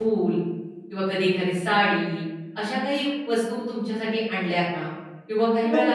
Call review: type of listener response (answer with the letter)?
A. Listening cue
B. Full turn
A